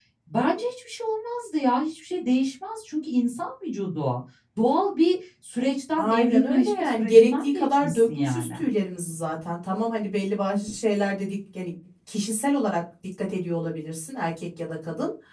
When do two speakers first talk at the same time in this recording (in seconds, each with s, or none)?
6.0 s